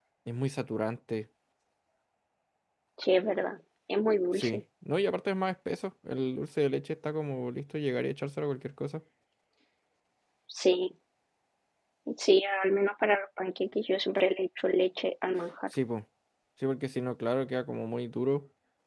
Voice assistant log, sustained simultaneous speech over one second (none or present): none